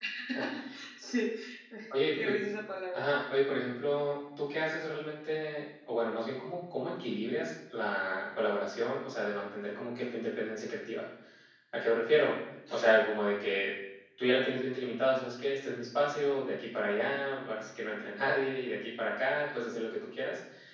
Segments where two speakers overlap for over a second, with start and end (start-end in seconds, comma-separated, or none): none